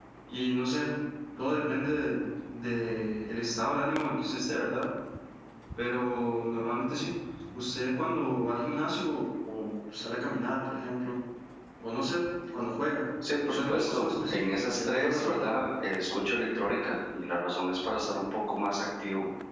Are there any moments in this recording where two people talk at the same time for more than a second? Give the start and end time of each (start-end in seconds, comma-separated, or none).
13.5-15.4